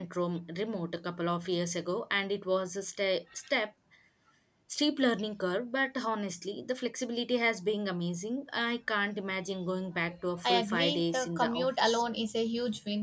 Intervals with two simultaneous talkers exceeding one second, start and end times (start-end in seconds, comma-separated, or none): 10.4-12.0